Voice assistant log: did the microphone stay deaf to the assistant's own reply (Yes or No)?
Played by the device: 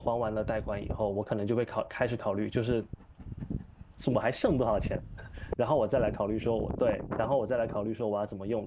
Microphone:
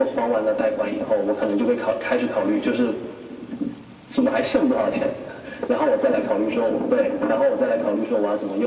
No